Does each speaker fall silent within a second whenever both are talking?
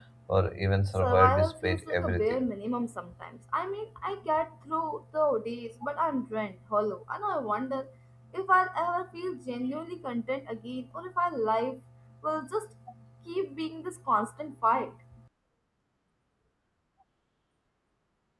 No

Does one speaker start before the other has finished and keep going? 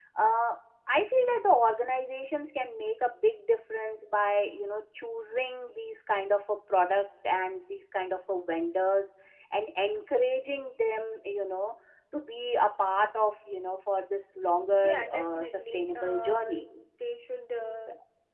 Yes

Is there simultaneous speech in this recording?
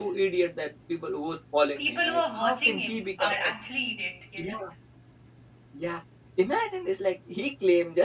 Yes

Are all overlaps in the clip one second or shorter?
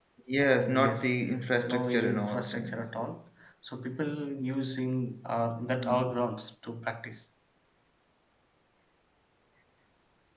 No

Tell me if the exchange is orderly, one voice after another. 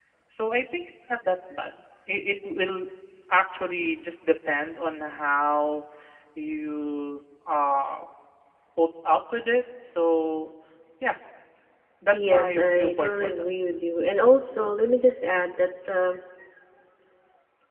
No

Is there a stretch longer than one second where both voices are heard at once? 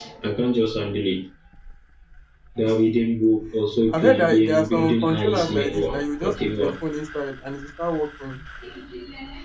Yes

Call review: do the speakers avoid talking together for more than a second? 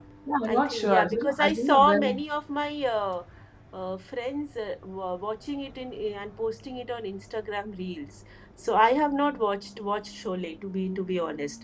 No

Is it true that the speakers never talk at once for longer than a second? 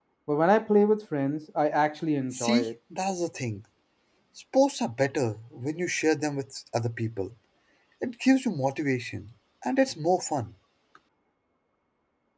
Yes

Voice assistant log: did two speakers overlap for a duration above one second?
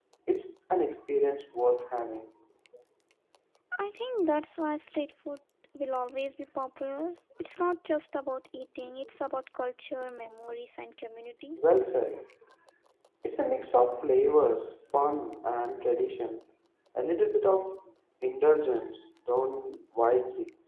No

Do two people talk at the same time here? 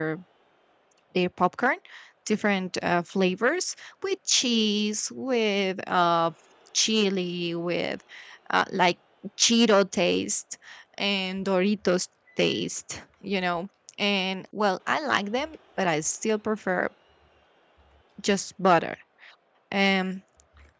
No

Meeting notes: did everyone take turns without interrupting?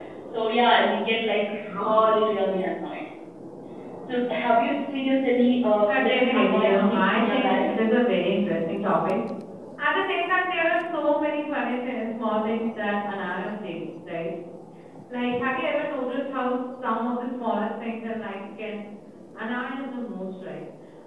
No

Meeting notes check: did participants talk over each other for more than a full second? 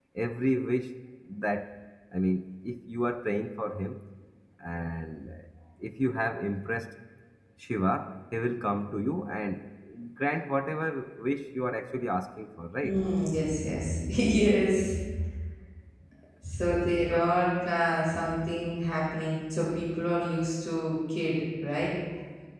No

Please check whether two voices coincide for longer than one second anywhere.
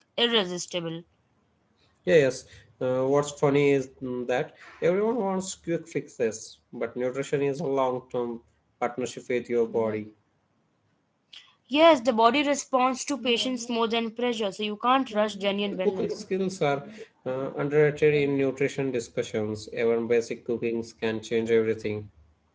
No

